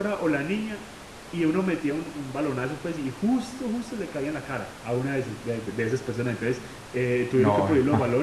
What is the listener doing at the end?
listening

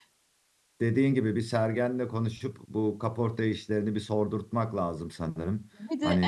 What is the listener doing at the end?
taking over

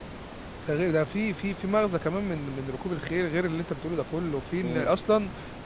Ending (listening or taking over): listening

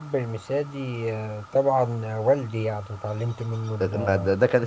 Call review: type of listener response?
taking over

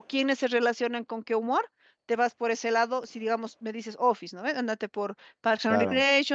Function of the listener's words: listening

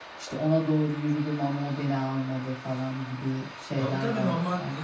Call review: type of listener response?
taking over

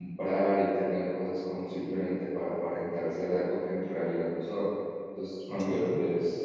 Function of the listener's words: listening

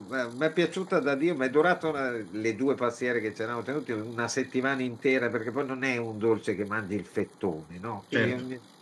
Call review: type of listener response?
listening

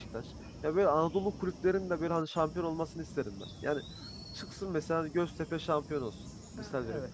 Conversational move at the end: listening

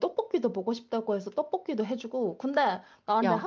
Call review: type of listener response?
listening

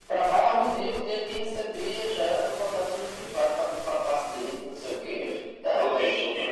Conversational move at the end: taking over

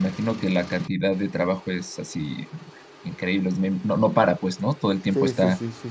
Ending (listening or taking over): taking over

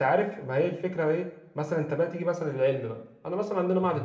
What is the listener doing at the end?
listening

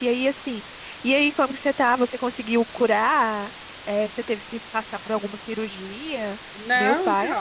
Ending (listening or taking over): taking over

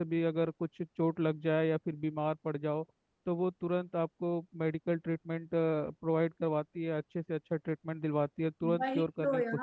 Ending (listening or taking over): taking over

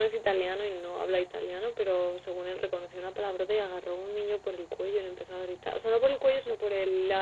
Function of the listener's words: listening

